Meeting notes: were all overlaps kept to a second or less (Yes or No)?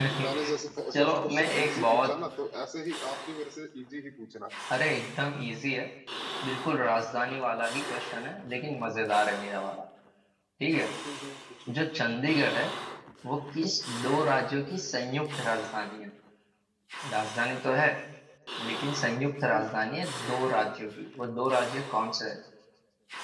No